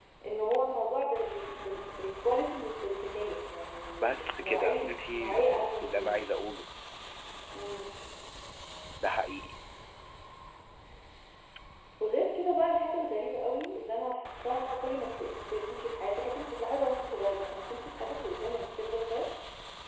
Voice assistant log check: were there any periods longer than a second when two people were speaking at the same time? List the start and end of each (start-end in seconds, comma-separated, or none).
4.0-6.2